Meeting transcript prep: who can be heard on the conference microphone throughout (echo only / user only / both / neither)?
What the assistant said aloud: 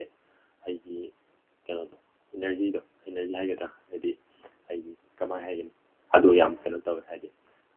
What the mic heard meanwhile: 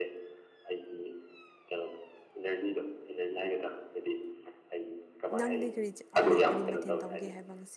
both